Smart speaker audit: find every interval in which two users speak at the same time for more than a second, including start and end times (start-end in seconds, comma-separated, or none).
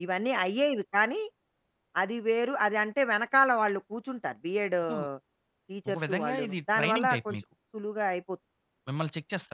5.9-7.4